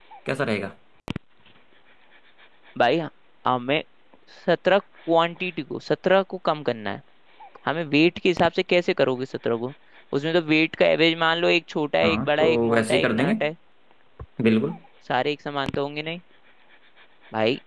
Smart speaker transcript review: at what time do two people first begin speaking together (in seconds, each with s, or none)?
12.0 s